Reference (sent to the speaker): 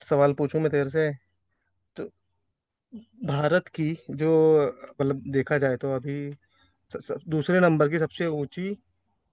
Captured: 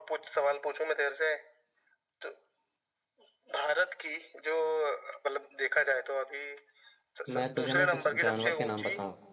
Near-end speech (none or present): present